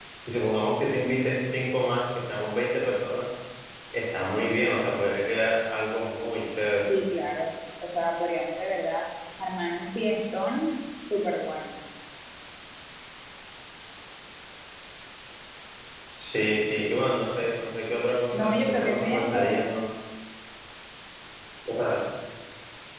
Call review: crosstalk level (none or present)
present